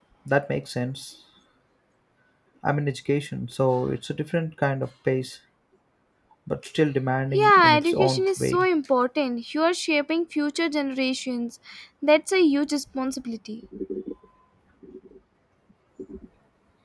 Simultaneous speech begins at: 7.3 s

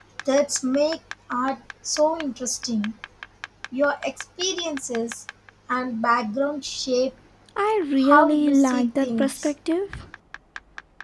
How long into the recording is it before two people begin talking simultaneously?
8.0 s

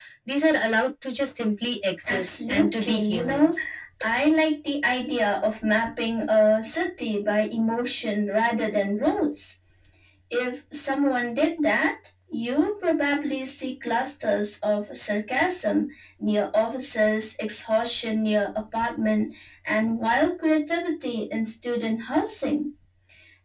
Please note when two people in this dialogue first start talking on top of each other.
2.1 s

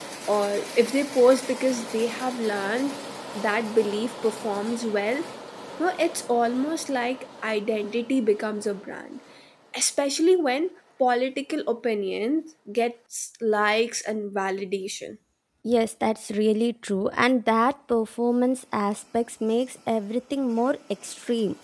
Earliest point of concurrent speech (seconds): none

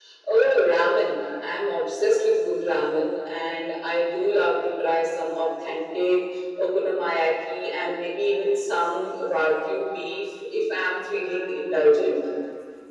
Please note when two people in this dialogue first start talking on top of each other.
none

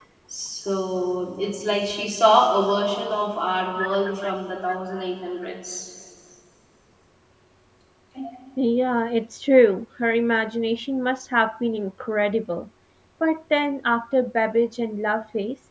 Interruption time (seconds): none

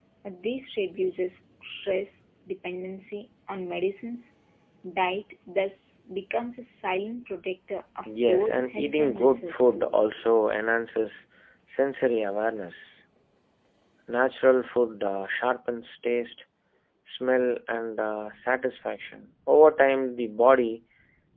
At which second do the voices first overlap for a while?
8.1 s

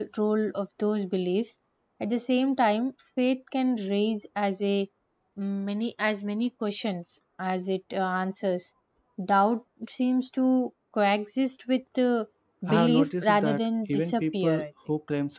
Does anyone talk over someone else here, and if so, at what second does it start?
12.7 s

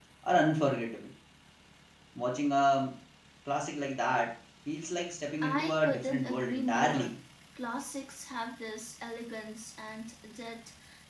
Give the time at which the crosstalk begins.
5.4 s

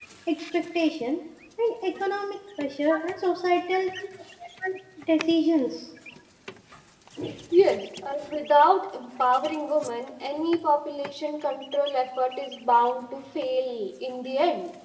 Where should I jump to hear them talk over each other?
none

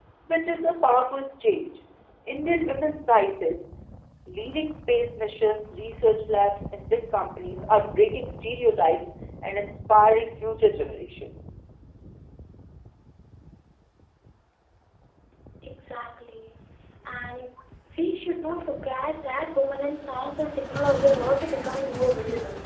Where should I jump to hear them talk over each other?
none

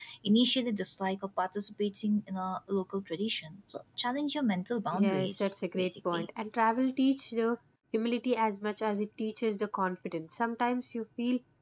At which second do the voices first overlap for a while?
4.9 s

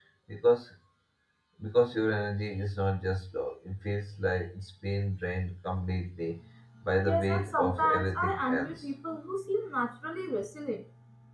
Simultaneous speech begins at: 7.0 s

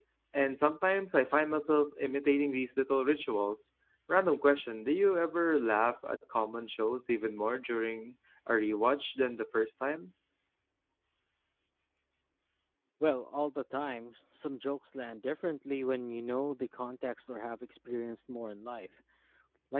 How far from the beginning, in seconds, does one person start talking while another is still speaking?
none

